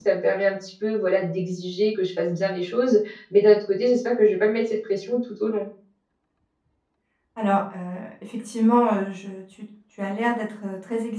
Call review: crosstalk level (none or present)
none